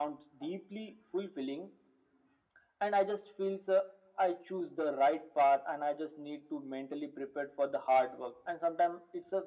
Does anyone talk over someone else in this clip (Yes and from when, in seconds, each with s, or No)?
No